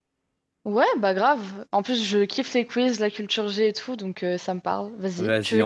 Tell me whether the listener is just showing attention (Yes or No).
No